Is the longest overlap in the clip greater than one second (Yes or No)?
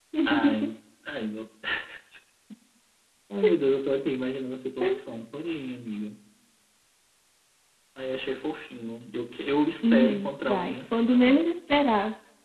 Yes